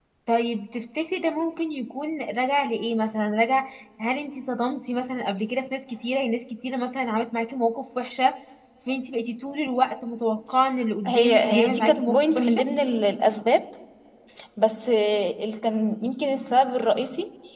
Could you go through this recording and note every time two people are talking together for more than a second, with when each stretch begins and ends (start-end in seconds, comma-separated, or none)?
11.1-12.6